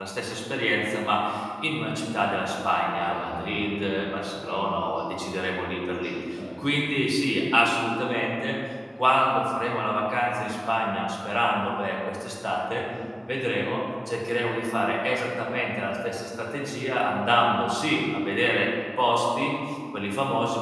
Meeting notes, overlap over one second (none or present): present